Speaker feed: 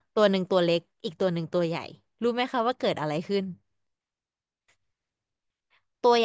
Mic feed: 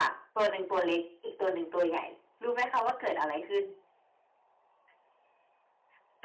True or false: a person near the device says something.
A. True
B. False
B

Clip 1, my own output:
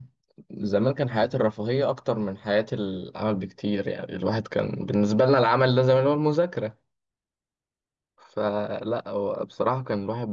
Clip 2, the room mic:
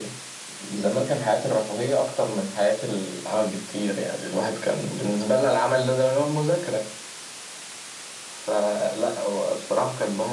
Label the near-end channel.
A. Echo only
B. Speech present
A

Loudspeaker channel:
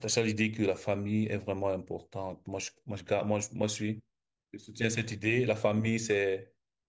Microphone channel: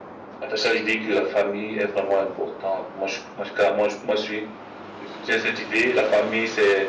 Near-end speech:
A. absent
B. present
A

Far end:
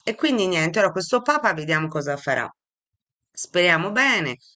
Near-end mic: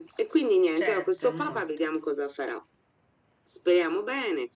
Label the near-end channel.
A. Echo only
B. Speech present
B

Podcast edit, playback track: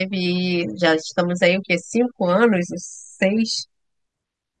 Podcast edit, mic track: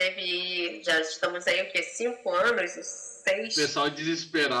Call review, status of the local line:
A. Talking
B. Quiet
A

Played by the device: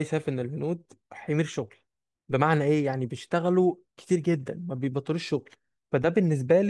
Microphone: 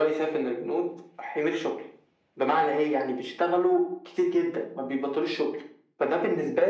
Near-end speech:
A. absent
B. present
A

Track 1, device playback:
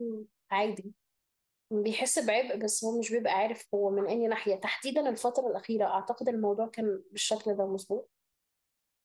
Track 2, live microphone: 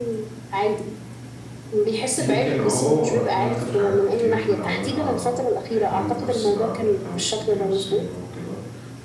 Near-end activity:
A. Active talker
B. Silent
A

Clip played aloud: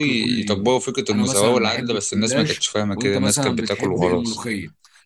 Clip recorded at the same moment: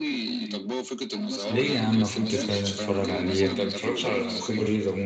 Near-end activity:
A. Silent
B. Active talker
B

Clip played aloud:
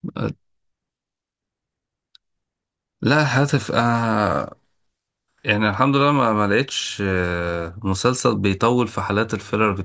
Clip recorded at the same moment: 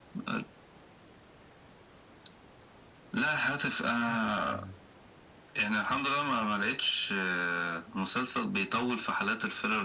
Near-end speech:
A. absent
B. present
B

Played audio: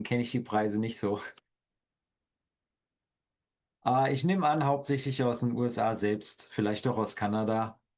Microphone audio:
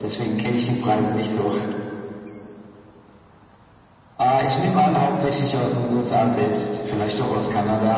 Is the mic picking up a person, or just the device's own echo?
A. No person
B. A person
A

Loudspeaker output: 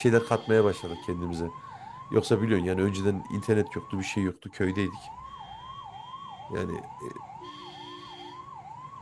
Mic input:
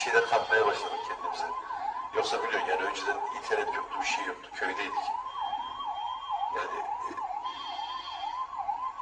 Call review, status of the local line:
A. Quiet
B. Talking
A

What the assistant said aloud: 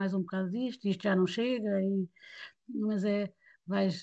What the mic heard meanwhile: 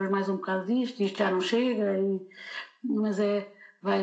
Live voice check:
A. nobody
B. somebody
A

